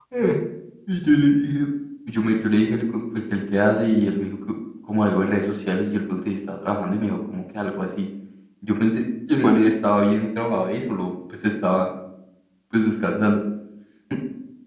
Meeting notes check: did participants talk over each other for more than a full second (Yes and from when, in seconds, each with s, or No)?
No